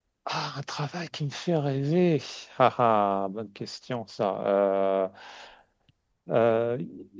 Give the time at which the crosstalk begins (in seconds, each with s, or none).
none